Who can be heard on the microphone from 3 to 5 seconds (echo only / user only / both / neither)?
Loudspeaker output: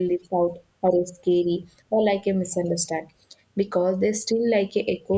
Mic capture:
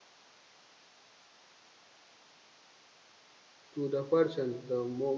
user only